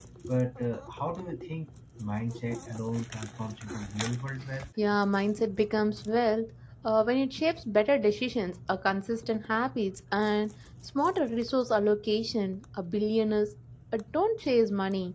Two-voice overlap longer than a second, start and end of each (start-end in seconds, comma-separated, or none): none